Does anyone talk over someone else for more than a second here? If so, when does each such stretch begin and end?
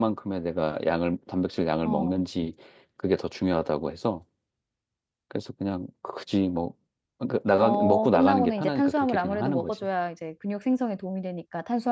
7.6-9.7

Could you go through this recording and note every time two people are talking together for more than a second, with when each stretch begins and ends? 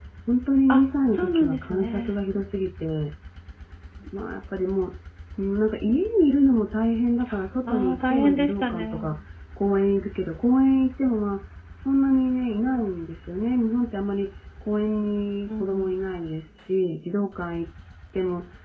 0.7-2.1, 7.7-9.1

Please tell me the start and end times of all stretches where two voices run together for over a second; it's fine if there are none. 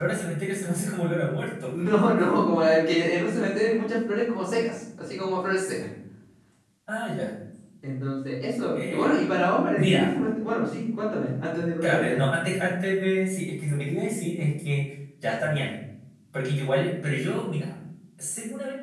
none

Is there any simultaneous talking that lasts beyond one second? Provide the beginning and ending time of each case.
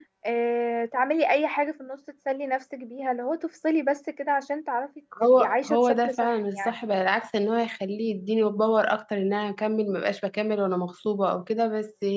5.2-6.8

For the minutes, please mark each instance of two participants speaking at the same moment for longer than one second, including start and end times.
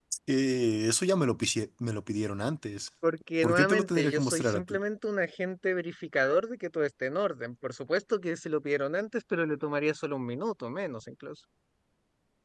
3.4-4.8

